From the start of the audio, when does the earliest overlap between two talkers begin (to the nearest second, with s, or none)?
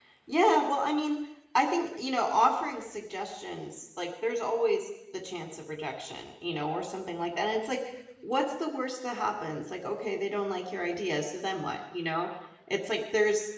none